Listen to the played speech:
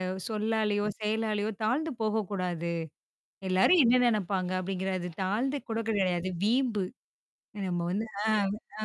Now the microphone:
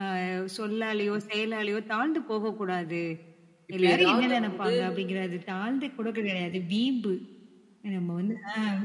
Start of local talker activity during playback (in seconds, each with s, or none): 3.7 s